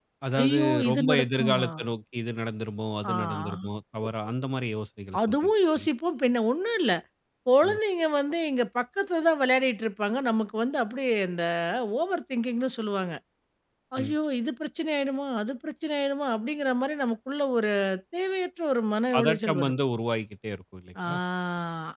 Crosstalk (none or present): present